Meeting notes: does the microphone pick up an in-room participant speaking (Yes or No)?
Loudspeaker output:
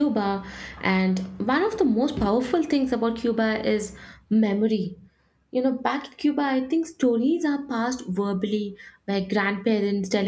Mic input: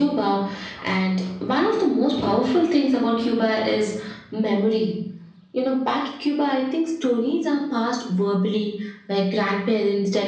No